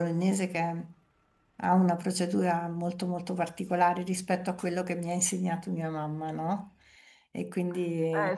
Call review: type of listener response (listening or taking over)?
taking over